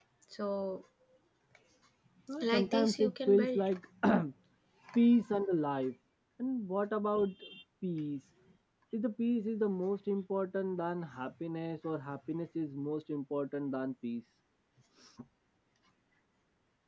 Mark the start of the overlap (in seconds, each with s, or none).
2.4 s